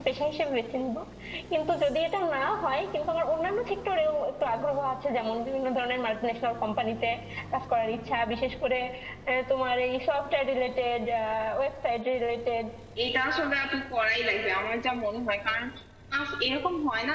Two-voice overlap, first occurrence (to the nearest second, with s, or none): none